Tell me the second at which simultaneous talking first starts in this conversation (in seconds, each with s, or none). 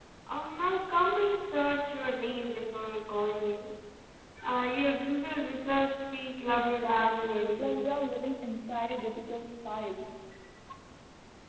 6.5 s